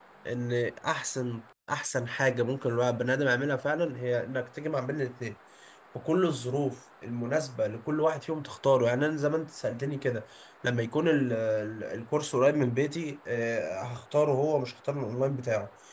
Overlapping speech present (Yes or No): No